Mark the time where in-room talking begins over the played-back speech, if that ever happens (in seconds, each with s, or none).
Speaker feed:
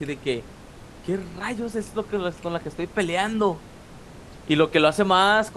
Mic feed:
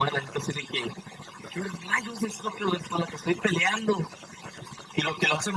none